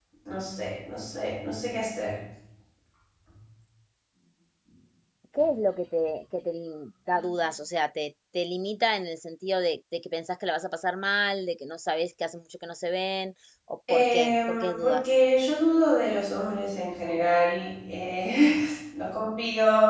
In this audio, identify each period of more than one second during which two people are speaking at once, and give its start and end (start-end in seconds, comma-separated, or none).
13.9-15.2